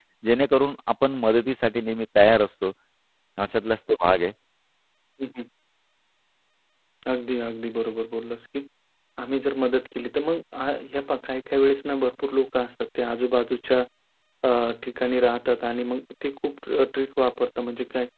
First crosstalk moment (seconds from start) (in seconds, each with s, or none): none